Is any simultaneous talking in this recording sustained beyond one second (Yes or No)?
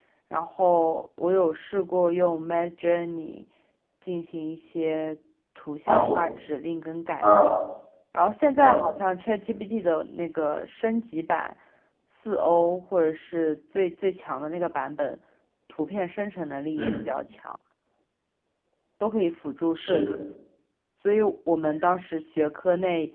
No